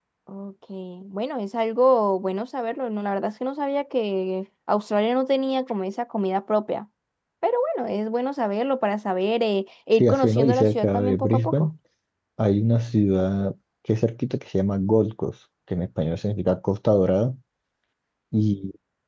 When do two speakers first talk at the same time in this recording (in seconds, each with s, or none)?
10.0 s